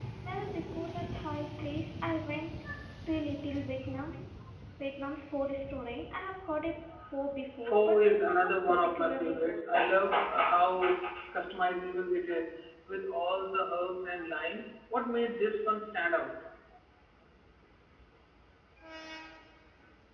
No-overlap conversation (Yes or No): No